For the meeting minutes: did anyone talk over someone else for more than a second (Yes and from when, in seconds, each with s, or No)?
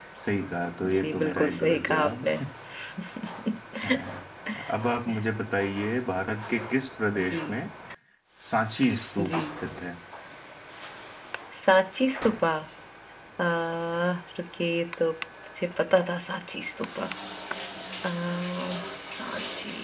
Yes, from 0.8 s